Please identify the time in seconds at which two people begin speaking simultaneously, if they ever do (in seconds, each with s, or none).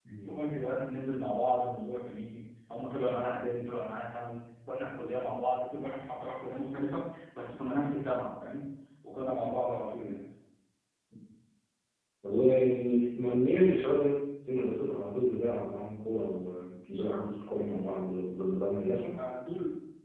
none